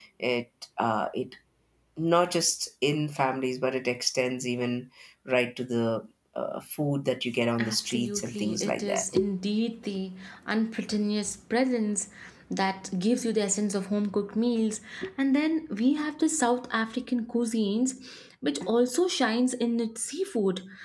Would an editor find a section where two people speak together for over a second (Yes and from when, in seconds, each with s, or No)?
Yes, from 7.6 s